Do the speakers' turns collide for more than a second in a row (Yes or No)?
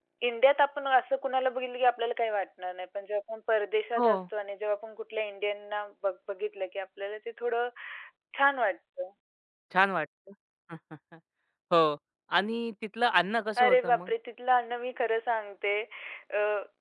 No